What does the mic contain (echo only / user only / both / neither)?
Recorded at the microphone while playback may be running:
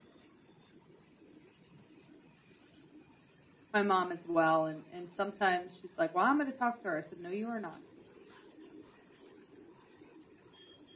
user only